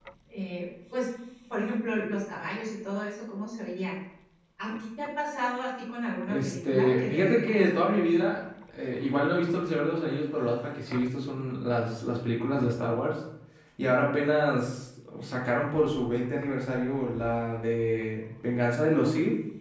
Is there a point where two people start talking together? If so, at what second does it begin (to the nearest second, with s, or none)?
6 s